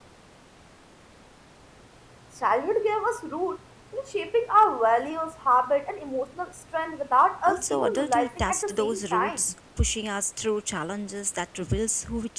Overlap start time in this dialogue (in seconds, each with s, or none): 7.4 s